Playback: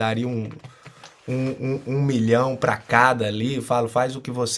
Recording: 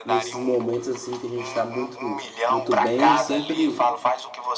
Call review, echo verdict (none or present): present